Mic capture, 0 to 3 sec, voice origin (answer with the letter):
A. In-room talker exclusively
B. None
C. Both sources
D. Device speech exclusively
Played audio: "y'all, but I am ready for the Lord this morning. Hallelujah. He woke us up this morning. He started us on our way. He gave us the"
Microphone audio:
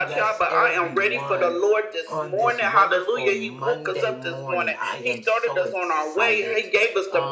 C